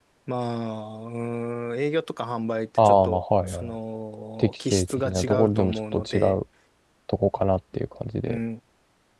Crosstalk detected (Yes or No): Yes